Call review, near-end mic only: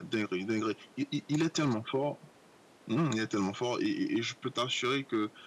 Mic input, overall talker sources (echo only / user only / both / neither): echo only